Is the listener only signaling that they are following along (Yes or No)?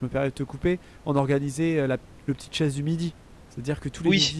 Yes